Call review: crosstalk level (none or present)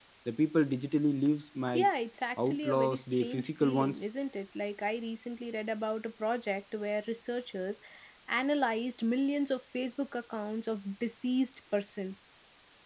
present